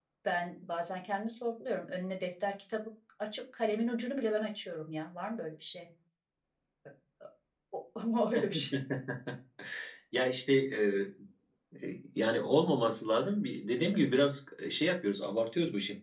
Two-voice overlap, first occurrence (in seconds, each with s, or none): none